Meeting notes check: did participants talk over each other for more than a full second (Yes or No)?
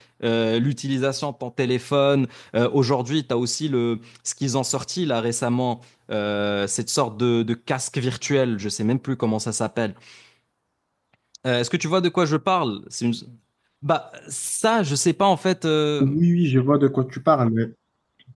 No